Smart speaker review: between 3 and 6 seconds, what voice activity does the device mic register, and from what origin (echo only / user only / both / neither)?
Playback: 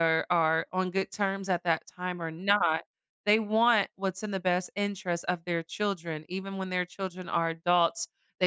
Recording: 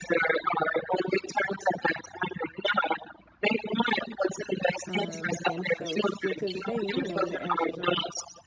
both